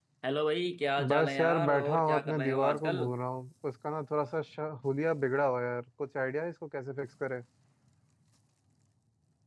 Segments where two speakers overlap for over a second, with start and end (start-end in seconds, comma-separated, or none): 1.1-3.0